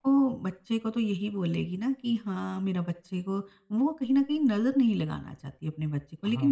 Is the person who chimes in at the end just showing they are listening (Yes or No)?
Yes